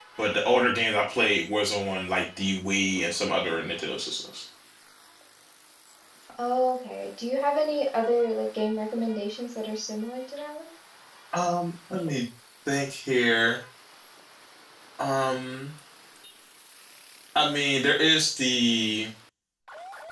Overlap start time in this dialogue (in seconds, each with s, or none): none